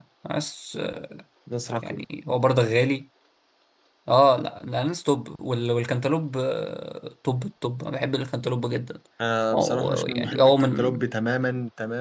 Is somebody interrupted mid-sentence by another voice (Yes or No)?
Yes